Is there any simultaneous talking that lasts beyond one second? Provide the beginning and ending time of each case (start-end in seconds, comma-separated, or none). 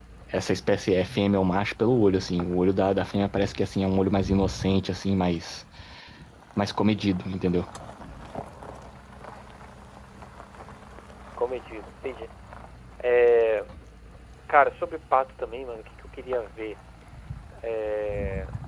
none